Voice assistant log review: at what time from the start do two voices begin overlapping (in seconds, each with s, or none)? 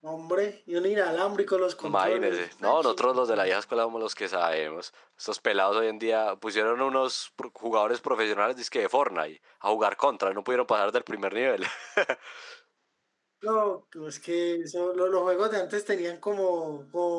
1.8 s